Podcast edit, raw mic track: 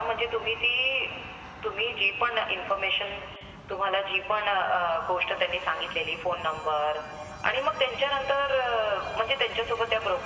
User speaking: No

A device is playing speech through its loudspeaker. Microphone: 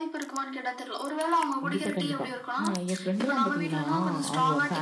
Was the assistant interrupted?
Yes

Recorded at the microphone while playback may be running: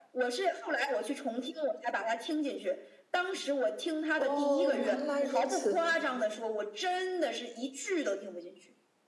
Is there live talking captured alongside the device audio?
Yes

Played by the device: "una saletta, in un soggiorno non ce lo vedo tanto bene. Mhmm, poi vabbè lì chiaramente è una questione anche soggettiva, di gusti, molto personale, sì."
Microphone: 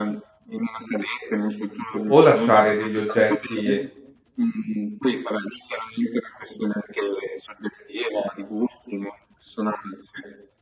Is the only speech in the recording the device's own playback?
No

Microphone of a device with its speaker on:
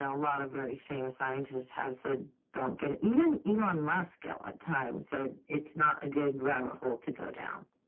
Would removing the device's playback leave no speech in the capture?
Yes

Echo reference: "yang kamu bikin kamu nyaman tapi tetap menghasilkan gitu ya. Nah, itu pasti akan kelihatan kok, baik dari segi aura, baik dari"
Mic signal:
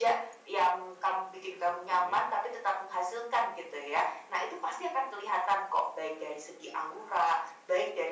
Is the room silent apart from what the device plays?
No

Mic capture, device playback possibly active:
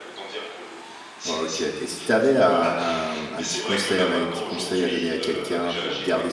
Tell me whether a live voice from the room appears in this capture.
Yes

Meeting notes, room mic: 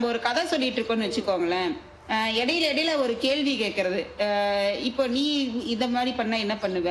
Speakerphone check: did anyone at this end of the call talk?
Yes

